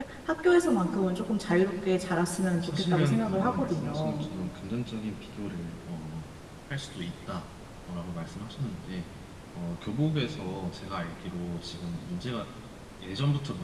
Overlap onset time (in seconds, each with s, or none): 2.5 s